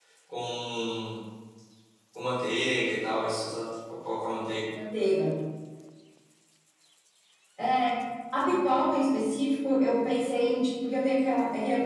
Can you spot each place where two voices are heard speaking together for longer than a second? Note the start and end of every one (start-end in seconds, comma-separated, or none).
none